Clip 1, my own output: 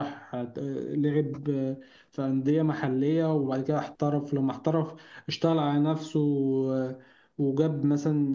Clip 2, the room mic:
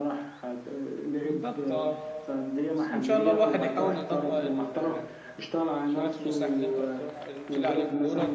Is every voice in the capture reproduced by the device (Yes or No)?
No